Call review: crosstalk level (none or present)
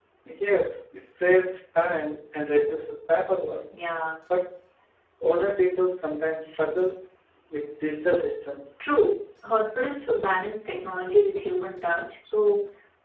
none